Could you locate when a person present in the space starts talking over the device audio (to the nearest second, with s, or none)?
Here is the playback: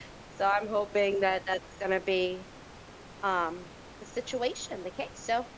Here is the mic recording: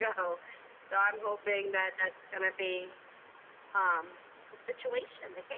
none